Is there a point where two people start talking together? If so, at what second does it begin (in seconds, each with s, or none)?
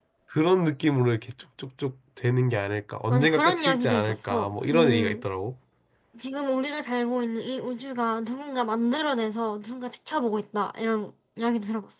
3.1 s